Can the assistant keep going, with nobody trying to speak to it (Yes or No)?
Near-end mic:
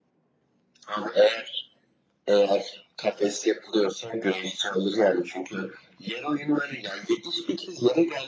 Yes